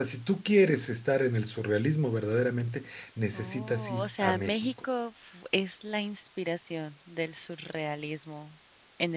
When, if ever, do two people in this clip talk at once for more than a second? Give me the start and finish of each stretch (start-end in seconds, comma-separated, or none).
3.3-4.7